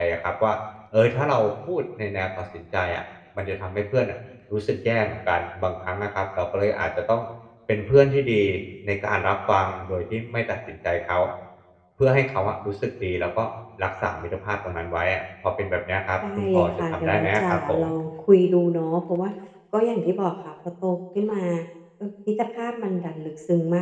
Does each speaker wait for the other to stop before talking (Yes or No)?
No